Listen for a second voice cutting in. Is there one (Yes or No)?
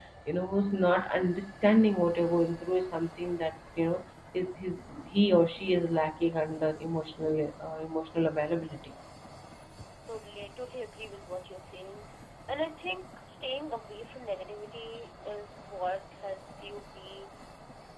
No